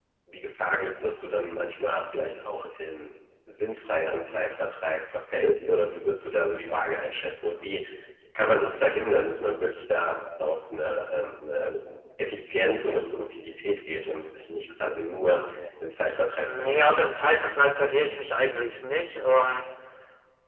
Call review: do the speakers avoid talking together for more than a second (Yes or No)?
Yes